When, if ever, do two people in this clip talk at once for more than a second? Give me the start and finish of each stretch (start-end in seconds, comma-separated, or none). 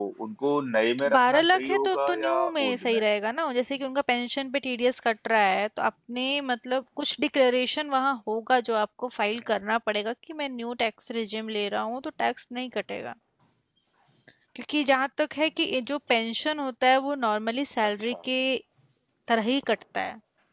1.0-3.0